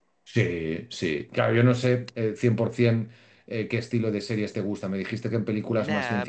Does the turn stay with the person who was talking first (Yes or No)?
No